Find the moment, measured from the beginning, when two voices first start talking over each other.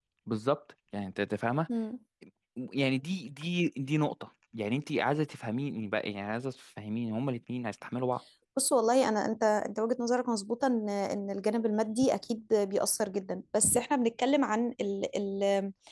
none

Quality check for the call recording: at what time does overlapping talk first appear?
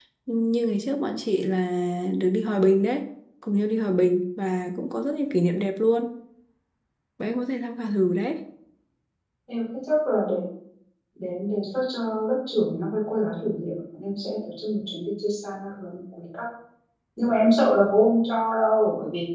none

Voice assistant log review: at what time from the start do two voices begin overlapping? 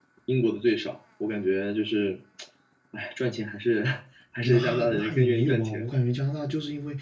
4.4 s

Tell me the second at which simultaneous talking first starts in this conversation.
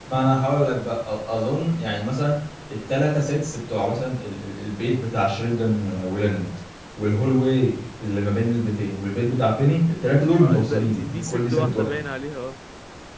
10.3 s

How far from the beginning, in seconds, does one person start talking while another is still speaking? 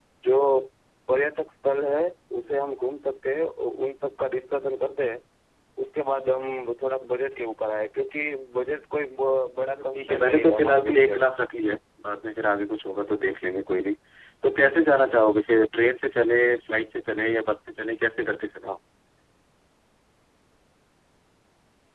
9.7 s

